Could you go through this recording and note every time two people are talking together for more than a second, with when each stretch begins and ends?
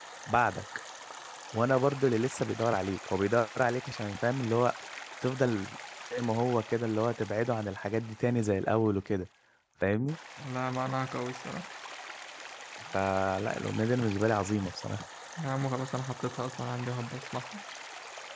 none

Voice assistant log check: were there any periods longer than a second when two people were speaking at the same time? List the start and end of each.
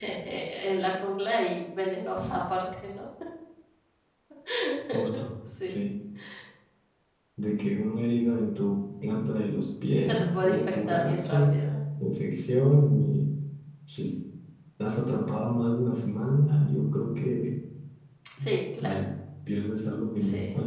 10.0-11.6

